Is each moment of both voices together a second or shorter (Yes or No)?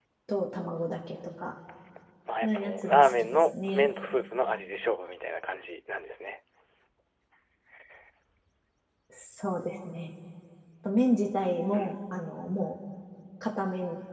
No